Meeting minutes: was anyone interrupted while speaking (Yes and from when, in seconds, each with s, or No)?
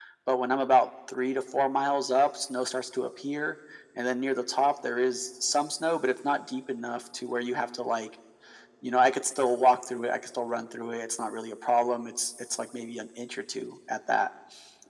No